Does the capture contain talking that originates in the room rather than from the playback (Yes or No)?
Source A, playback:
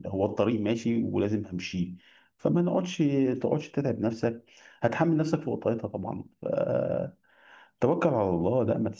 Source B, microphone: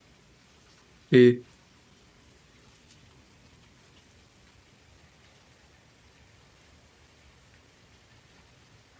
Yes